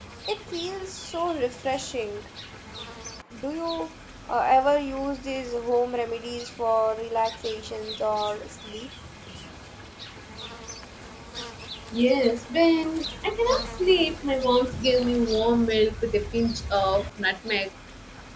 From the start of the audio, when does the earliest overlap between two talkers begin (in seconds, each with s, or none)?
none